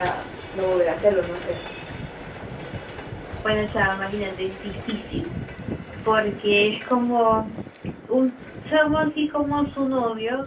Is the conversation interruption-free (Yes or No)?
Yes